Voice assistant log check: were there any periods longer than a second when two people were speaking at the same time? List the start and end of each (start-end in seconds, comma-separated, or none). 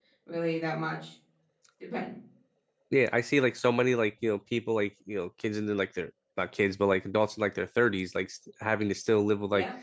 none